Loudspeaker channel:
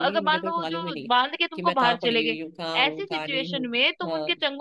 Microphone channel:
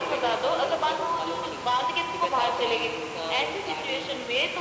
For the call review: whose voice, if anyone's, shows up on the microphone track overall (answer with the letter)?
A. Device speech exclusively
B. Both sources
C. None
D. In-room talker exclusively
A